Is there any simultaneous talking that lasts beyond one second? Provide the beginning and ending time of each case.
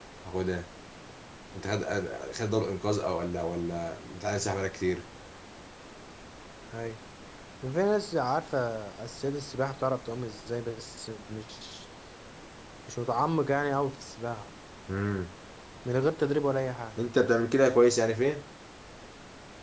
none

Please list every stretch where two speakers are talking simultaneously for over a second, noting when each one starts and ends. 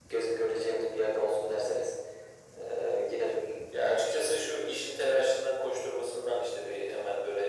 none

